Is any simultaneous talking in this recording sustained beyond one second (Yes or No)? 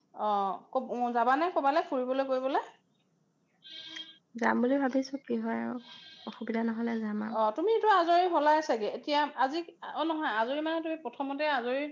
No